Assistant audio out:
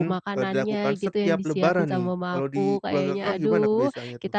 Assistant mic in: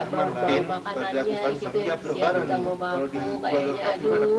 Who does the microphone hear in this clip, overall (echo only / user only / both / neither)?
both